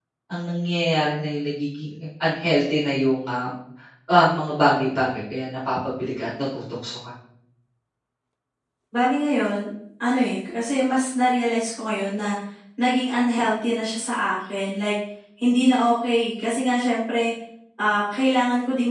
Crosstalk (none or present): none